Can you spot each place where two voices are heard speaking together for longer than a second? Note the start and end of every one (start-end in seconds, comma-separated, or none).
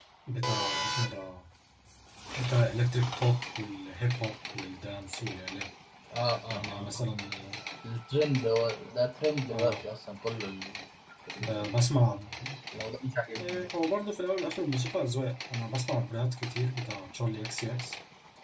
none